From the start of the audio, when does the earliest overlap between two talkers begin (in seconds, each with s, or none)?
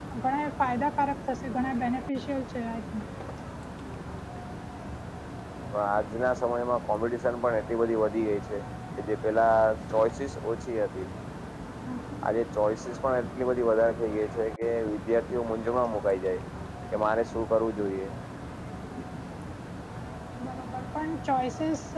none